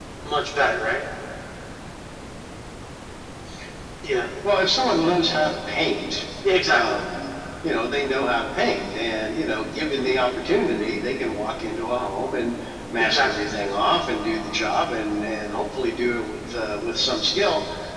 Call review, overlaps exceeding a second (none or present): none